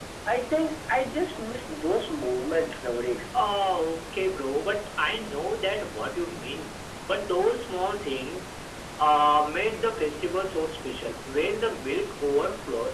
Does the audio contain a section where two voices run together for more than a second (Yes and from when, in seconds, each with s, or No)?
No